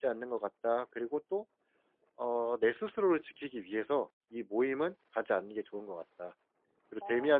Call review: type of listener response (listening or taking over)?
listening